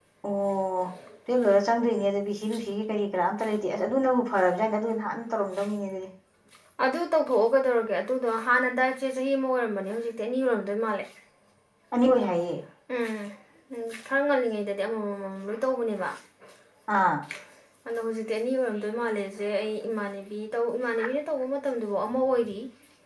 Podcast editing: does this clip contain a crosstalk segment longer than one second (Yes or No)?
No